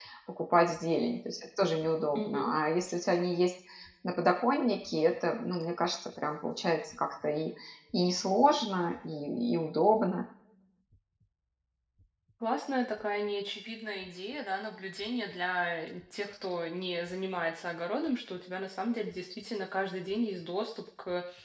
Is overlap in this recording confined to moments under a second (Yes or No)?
Yes